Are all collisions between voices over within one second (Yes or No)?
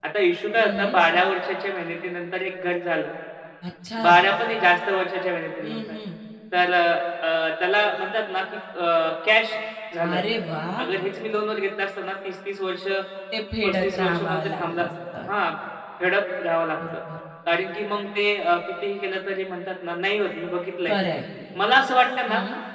No